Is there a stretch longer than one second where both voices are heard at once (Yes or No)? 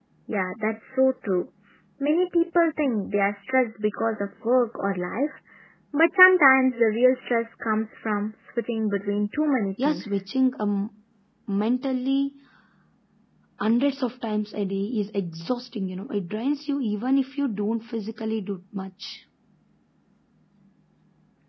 No